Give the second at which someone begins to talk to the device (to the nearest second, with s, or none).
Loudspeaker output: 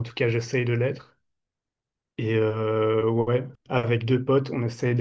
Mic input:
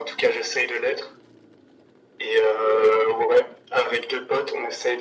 none